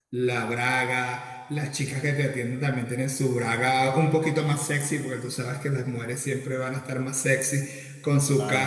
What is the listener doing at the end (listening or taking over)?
listening